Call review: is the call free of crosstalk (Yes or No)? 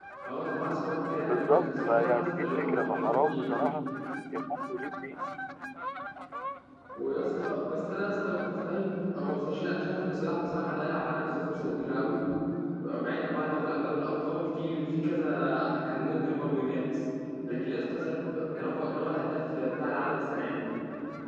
No